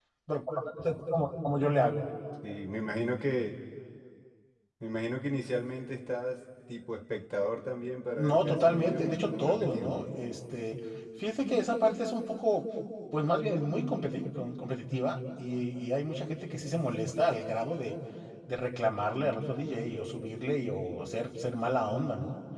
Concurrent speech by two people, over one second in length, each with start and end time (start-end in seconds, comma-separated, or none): 8.2-10.1